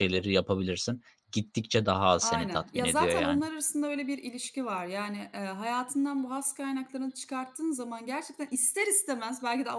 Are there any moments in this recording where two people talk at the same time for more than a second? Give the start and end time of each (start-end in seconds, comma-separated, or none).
2.2-3.4